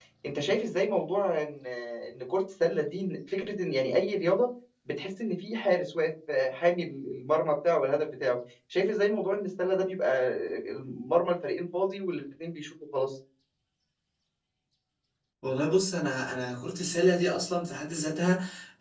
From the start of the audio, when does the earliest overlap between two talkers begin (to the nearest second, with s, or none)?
none